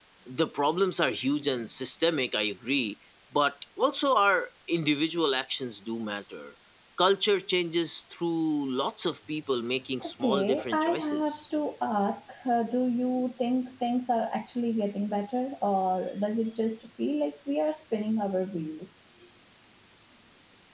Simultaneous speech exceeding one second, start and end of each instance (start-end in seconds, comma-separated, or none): 10.0-11.4